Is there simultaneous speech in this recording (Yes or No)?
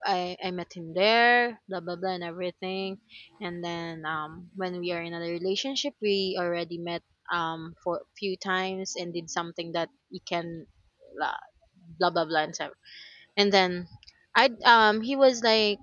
No